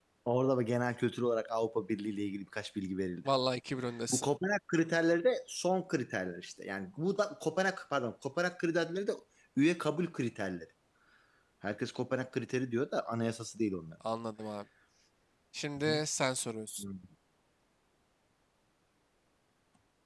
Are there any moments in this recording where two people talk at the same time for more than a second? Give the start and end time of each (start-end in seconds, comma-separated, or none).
none